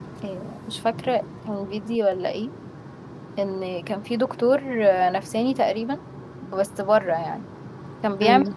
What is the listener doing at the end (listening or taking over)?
listening